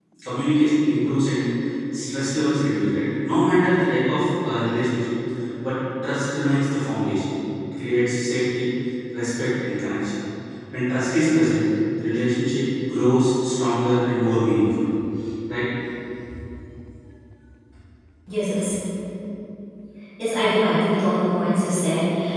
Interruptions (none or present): none